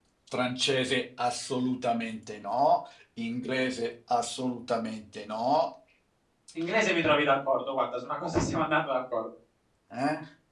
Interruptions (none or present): none